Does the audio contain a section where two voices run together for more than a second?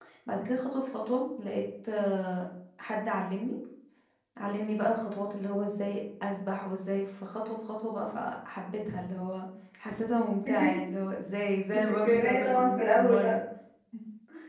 Yes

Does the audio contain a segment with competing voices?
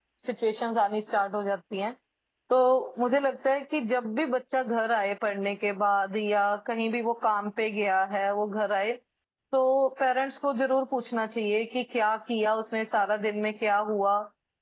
No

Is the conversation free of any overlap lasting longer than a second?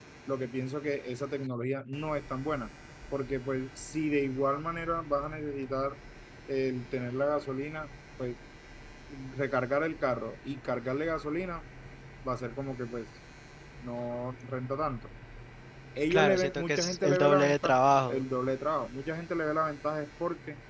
No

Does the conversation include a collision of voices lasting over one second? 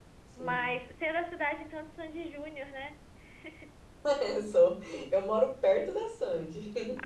No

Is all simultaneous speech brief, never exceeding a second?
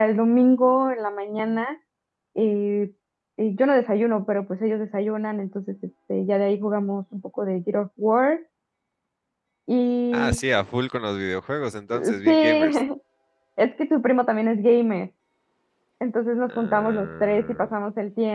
No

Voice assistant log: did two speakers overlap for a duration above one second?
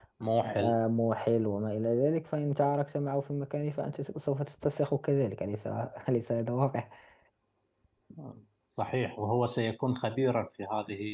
No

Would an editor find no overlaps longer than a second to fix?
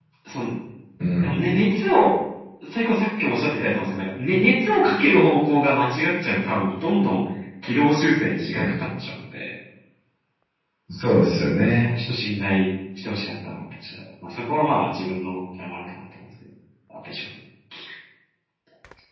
Yes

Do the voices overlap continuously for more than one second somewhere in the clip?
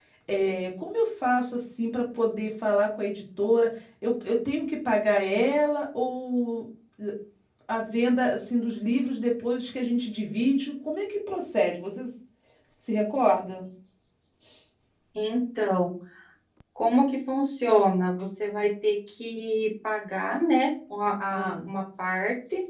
No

